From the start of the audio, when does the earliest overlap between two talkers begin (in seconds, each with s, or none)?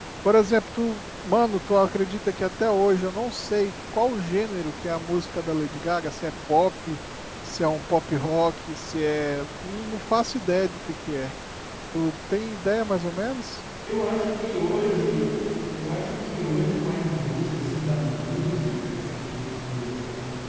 none